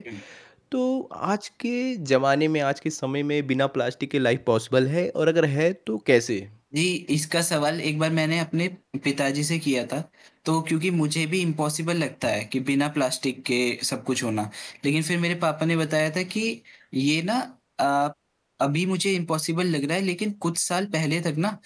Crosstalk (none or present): none